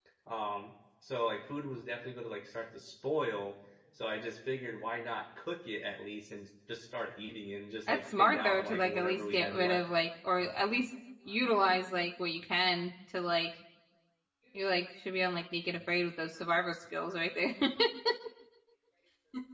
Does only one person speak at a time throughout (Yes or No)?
No